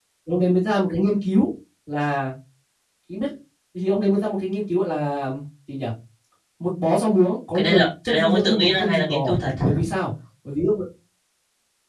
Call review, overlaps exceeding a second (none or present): present